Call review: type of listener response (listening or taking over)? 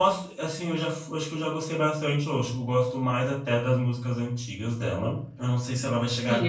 taking over